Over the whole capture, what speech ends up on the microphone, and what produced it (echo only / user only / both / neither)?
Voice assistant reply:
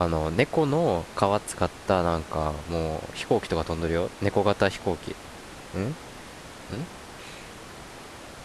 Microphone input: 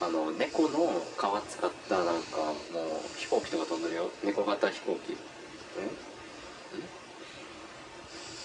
echo only